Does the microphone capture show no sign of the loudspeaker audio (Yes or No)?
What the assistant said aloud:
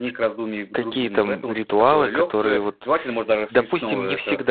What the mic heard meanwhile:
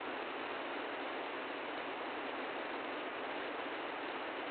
Yes